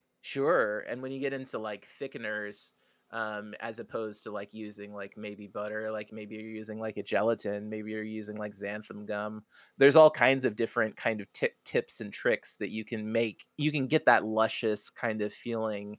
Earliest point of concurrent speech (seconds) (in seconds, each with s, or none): none